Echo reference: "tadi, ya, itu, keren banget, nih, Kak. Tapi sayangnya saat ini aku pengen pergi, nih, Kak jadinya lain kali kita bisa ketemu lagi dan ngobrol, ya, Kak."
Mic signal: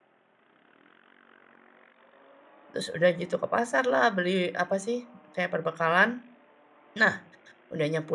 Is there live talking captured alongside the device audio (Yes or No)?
Yes